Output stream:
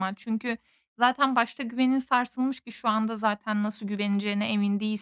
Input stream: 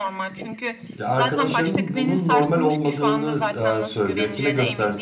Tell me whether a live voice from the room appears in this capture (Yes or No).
Yes